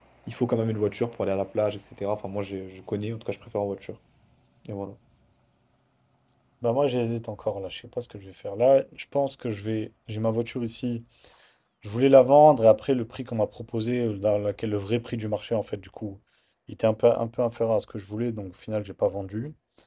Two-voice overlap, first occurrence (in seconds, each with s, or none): none